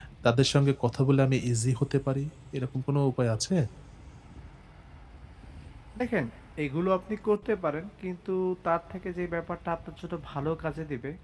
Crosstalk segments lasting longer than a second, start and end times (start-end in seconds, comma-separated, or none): none